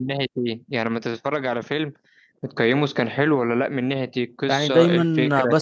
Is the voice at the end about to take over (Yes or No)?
Yes